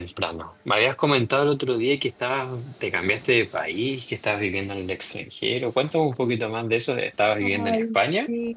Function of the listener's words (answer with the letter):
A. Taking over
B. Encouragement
A